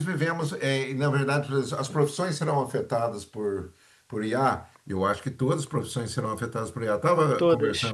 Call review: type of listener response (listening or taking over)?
listening